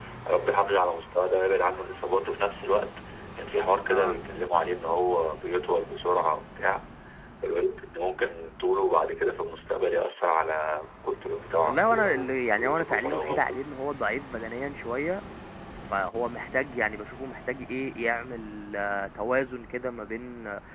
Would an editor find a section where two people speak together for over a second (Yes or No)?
Yes